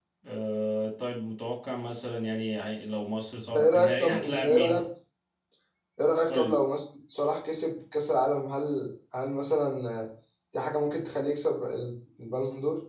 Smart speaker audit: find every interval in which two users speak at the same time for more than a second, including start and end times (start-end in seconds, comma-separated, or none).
3.5-4.8